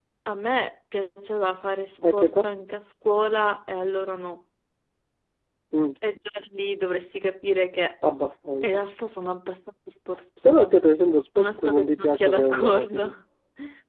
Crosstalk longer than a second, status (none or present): present